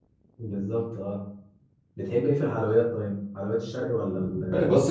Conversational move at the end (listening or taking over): taking over